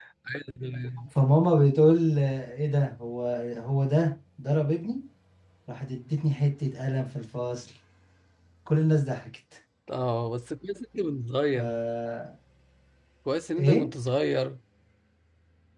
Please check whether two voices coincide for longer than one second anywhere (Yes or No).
No